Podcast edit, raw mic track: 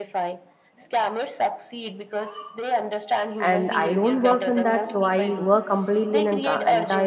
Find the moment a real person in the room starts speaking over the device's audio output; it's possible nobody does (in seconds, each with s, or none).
3.4 s